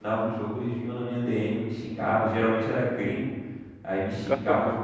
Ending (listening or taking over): listening